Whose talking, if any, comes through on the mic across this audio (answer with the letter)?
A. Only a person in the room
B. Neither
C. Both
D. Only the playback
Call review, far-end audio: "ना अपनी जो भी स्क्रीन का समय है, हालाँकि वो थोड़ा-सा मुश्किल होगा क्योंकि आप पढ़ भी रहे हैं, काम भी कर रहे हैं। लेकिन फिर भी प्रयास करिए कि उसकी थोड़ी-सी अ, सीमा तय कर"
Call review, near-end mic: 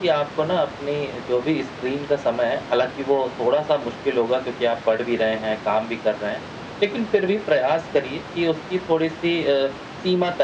D